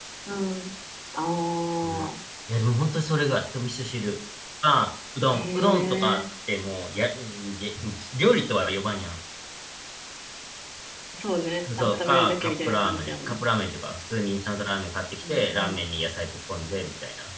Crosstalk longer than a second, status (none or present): present